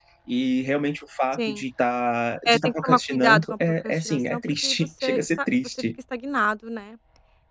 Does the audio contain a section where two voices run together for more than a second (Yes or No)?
Yes